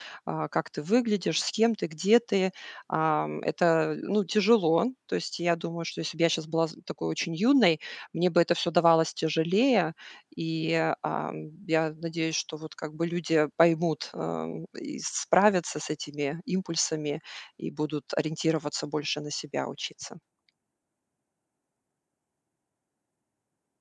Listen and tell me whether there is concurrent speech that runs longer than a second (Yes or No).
No